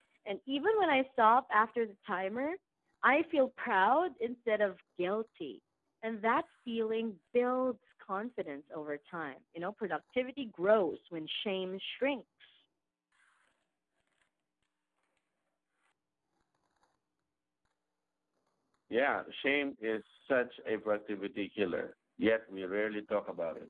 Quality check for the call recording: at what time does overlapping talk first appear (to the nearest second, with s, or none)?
none